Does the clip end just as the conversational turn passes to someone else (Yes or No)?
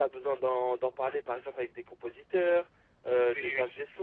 No